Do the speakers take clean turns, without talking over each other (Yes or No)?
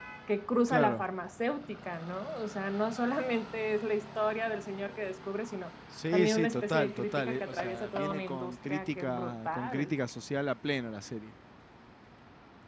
No